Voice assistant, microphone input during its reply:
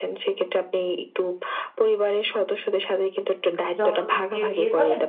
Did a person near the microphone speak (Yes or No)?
Yes